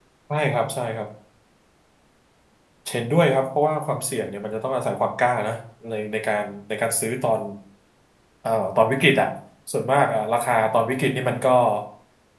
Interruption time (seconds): none

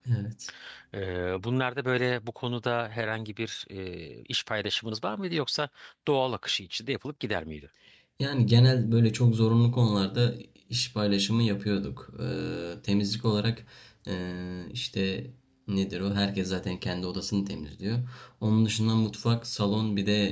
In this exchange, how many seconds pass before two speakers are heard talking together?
none

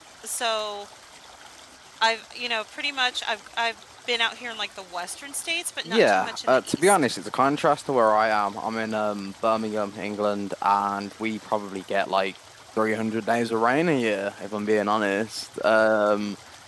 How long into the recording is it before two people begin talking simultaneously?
6 s

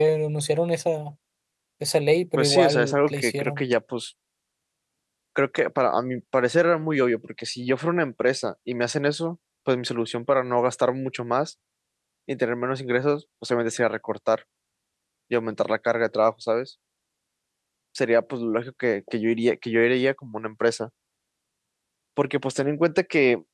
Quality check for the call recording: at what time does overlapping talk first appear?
2 s

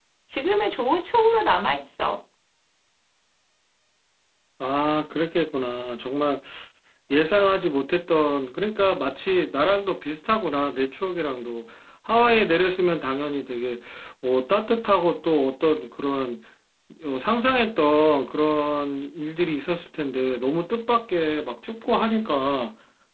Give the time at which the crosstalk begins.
none

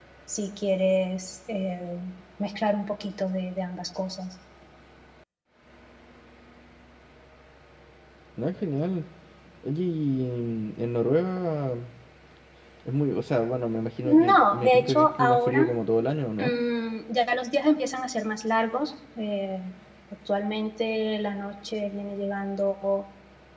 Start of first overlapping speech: 14 s

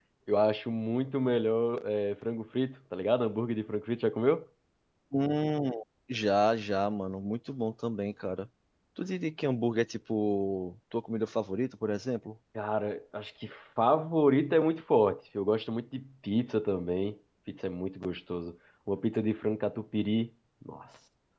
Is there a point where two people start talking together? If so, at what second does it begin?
none

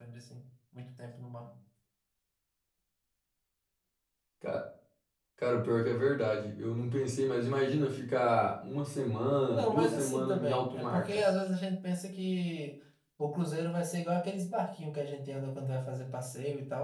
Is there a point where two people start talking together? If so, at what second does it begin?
10 s

